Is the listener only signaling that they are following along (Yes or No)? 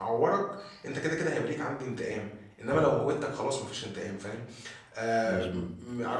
Yes